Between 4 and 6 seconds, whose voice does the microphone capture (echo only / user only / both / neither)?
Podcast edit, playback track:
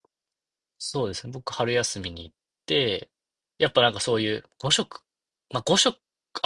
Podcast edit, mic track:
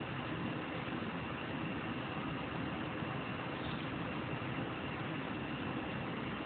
neither